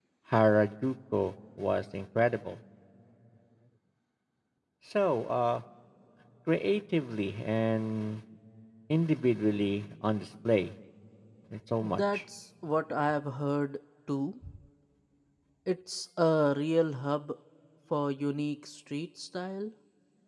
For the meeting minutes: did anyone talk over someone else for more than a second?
No

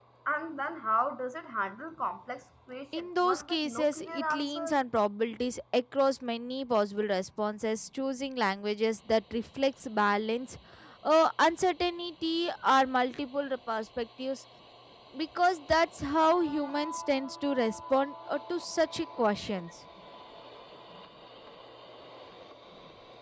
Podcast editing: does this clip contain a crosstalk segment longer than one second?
Yes, from 2.9 s

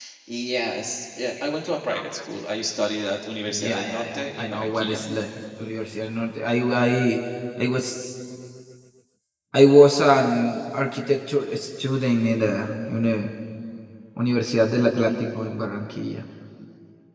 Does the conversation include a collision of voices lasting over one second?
Yes, from 3.5 s

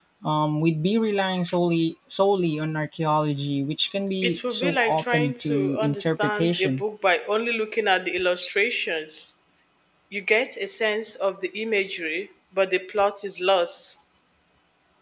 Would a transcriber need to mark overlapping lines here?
Yes, from 4.2 s

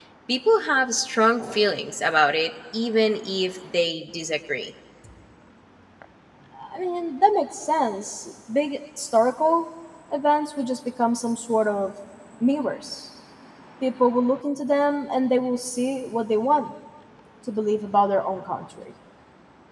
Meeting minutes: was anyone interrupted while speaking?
No

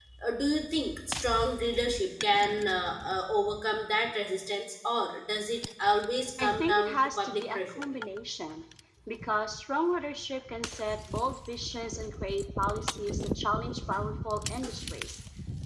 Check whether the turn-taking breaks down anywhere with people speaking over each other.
Yes, from 6.4 s

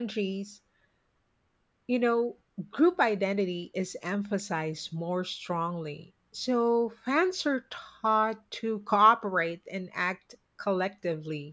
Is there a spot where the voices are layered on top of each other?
No

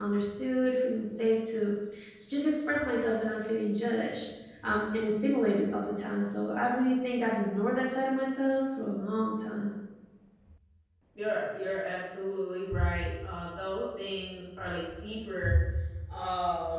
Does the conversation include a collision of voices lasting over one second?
No

